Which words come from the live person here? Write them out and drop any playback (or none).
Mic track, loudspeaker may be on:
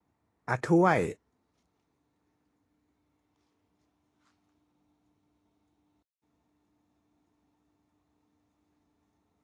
อ่ะถ้วย